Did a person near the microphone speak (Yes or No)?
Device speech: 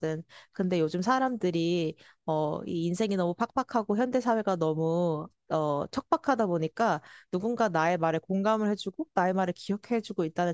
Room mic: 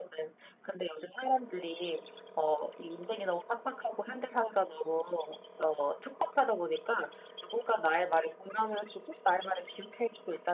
No